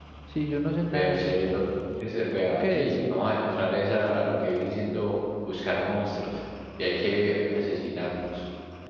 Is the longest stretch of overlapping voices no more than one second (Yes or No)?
Yes